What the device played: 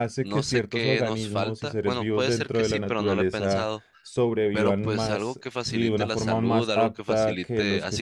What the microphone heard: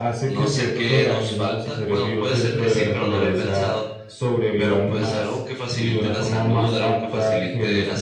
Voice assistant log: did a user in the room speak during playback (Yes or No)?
No